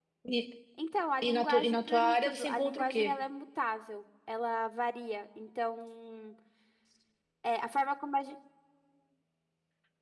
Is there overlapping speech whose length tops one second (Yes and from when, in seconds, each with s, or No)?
Yes, from 1.2 s